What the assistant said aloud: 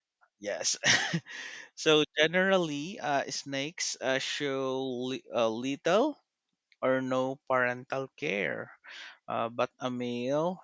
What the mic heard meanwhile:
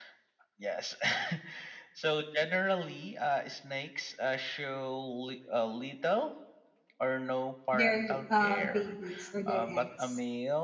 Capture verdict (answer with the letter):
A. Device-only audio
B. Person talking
B